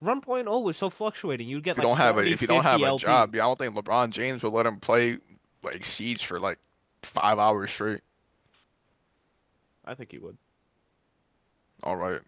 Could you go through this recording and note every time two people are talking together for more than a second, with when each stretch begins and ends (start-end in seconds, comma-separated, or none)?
1.8-3.3